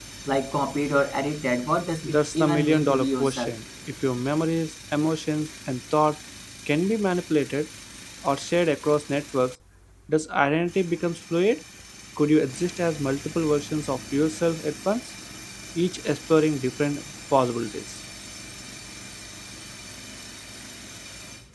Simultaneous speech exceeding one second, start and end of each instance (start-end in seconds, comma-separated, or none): 2.0-3.5